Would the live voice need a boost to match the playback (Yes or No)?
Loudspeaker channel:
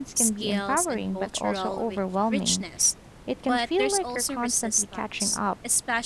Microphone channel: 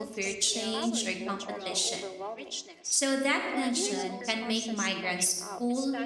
No